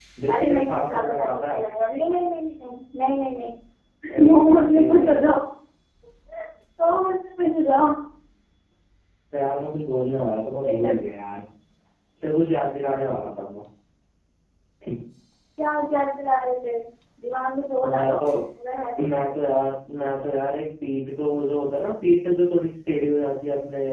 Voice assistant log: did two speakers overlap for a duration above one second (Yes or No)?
Yes